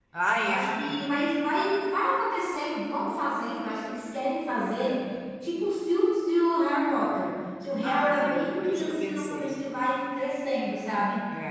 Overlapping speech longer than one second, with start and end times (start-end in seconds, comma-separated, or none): 7.8-9.6